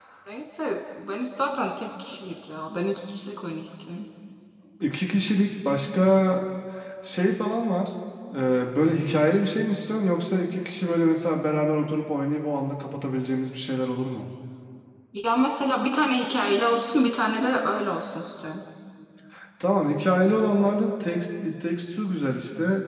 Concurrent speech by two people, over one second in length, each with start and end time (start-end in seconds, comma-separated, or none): none